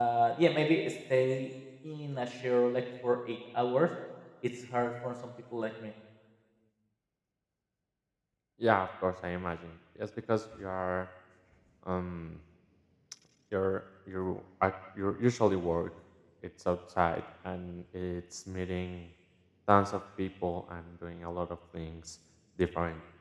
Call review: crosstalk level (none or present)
none